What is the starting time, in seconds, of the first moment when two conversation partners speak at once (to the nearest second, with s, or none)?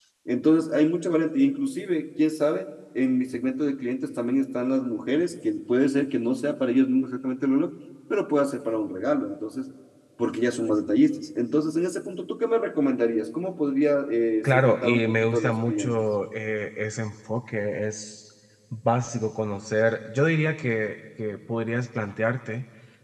14 s